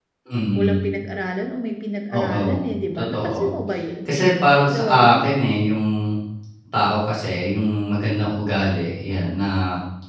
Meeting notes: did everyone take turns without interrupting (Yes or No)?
No